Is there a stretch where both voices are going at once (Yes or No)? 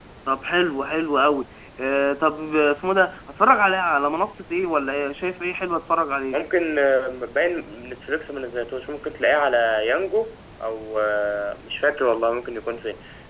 No